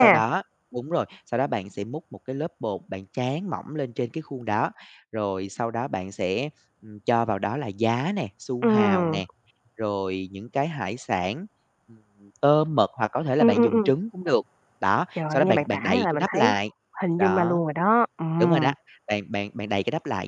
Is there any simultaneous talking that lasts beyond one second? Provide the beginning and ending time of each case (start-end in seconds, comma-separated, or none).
15.3-16.5